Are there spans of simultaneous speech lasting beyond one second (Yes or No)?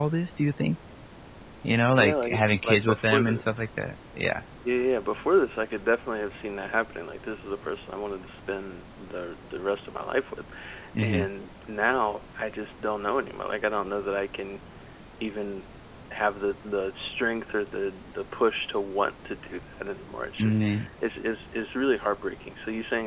Yes